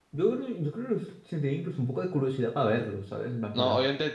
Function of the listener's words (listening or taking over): taking over